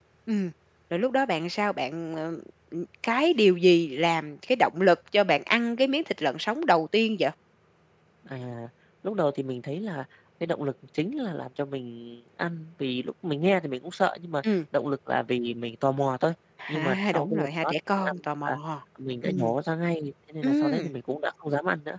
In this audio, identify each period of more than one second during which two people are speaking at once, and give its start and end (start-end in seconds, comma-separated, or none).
16.7-18.5